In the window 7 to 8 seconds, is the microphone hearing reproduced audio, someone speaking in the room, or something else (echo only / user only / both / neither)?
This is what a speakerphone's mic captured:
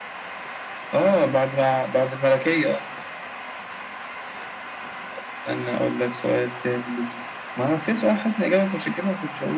echo only